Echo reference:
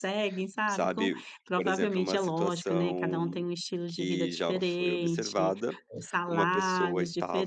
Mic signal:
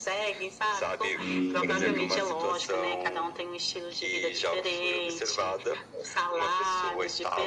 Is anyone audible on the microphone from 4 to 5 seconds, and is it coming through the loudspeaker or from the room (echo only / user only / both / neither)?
echo only